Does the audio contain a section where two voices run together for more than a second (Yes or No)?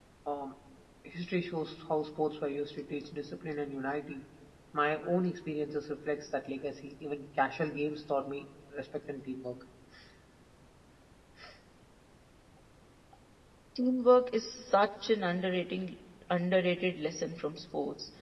No